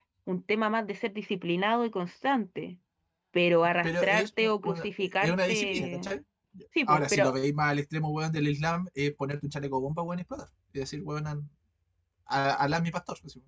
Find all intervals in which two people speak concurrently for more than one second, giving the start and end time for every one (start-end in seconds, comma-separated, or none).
3.8-6.1